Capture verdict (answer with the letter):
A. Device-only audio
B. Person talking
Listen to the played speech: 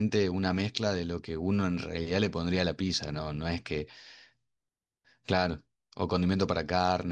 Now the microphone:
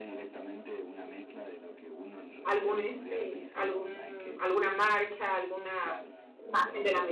B